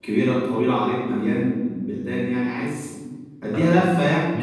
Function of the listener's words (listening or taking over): taking over